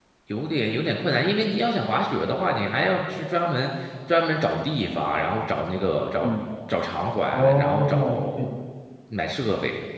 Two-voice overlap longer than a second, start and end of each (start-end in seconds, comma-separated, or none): 7.3-8.5